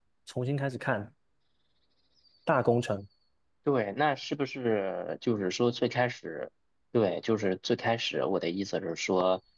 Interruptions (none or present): none